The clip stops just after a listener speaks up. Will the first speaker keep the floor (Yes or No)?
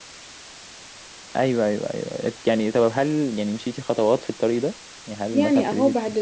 No